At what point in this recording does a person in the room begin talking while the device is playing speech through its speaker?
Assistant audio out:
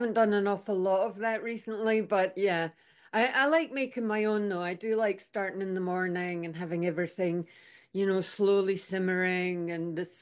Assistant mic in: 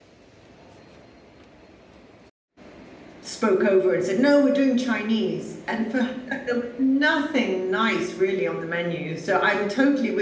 3.2 s

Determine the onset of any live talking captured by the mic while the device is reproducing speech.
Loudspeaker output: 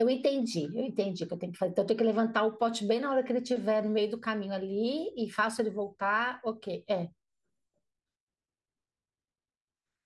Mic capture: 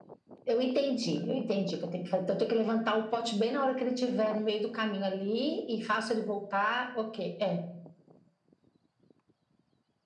none

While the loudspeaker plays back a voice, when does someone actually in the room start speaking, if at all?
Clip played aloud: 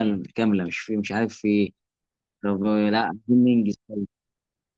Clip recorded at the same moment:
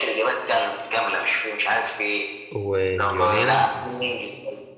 2.5 s

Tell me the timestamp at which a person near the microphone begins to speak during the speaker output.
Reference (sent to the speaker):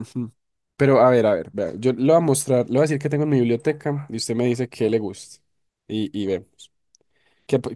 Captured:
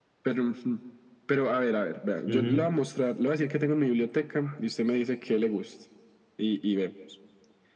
2.2 s

